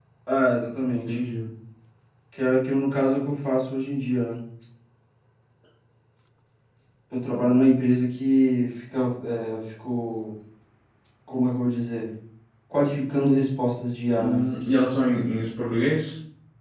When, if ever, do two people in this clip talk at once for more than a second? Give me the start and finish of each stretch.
none

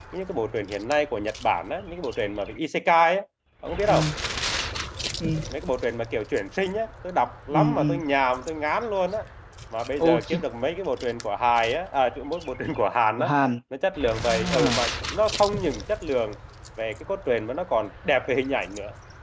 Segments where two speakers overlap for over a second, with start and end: none

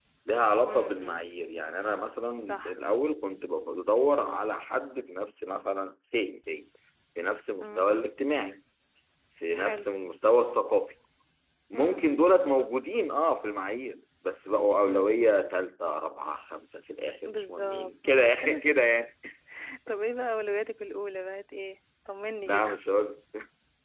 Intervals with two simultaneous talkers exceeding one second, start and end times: 17.3-19.0

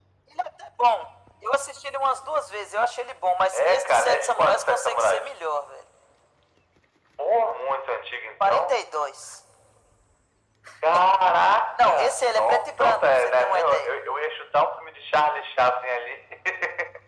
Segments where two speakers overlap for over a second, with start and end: 3.5-5.3, 11.8-13.9

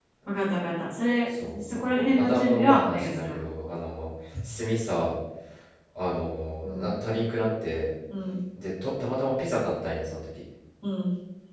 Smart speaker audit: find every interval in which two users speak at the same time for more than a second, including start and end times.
1.4-3.4

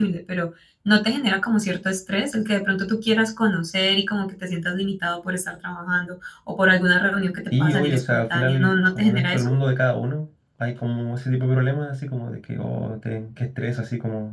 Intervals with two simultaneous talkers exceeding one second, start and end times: 7.5-9.5

